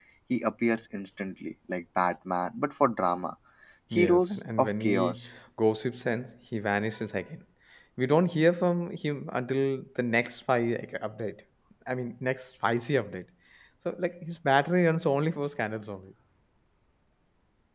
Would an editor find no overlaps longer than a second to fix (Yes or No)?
No